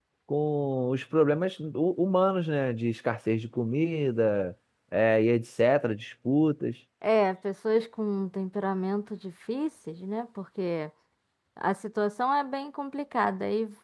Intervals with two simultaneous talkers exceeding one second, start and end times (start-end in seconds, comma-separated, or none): none